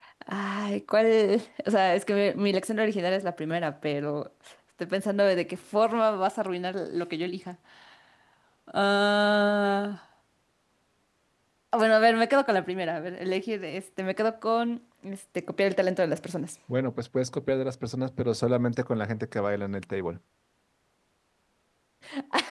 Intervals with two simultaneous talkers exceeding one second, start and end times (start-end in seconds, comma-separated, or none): none